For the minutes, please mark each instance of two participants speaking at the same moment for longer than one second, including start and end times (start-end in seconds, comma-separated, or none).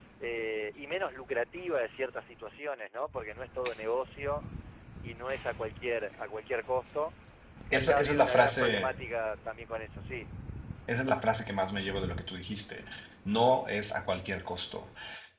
7.7-8.9